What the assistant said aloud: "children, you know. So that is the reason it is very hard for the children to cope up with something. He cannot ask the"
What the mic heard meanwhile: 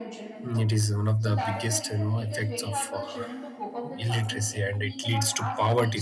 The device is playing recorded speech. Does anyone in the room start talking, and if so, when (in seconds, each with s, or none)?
0.4 s